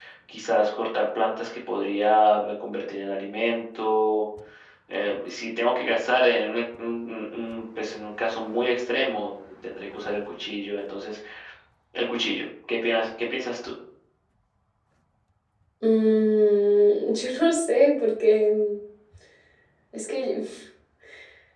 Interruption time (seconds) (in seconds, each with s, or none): none